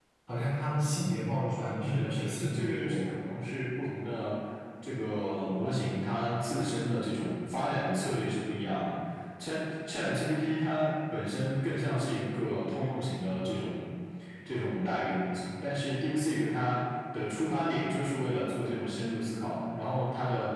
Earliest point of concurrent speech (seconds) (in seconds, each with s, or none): 1.8 s